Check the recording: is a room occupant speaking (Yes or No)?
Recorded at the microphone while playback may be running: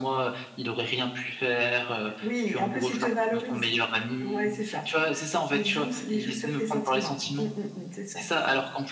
No